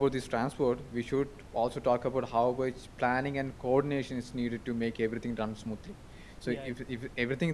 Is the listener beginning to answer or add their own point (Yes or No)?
No